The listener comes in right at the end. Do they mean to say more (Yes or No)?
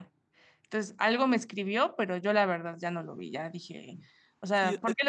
Yes